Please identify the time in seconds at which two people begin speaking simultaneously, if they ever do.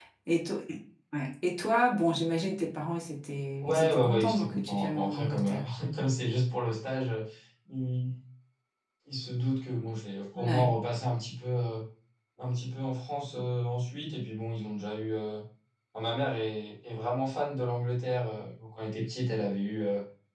3.6 s

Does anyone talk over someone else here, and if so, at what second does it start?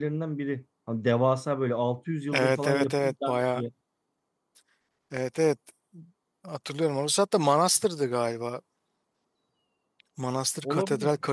2.3 s

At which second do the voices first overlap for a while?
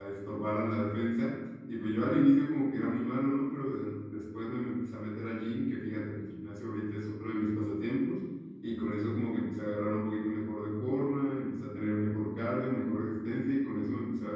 none

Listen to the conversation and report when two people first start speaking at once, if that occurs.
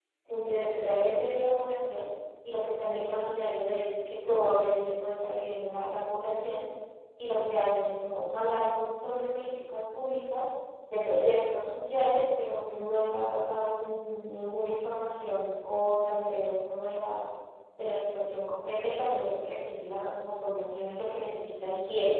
none

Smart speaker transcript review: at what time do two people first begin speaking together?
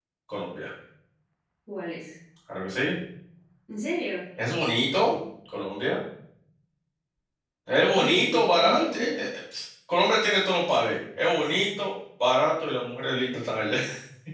7.9 s

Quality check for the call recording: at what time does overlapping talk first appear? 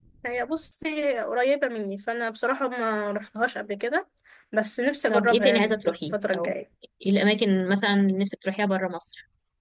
5.1 s

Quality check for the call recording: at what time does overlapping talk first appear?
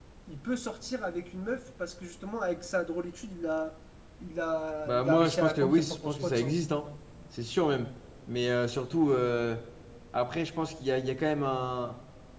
4.9 s

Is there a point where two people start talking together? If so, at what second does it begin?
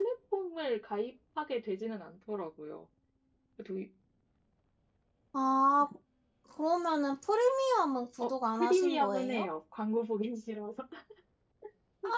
8.2 s

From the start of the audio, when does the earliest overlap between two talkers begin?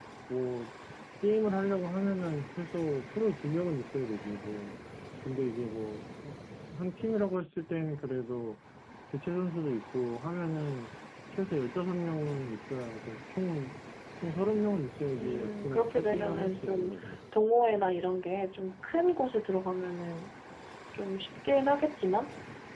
15.2 s

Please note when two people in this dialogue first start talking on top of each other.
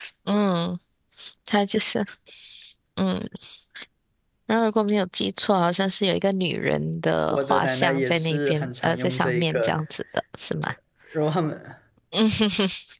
7.3 s

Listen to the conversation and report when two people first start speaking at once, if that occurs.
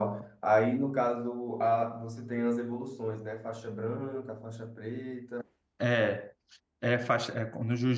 none

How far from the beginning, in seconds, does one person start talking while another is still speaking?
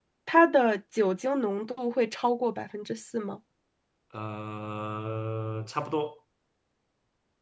none

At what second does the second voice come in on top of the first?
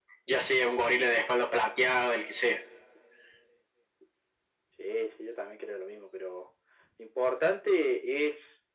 none

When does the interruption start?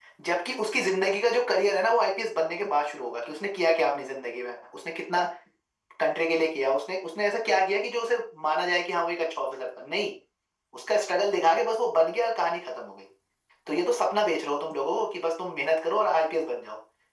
none

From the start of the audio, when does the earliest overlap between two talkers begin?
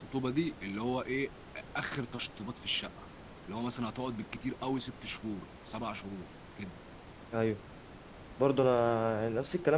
none

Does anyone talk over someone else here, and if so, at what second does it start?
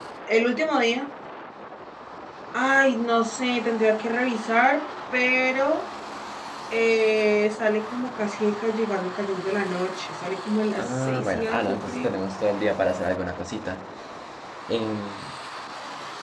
10.8 s

